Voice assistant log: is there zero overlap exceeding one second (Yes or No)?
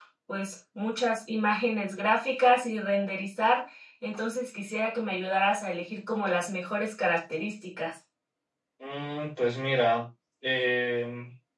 Yes